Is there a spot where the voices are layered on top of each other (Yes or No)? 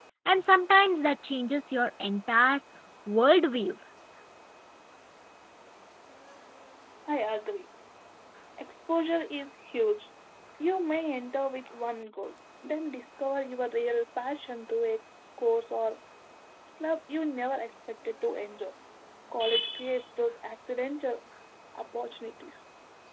No